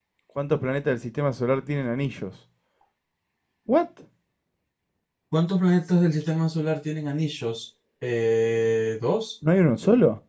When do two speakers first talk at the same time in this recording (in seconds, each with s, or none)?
none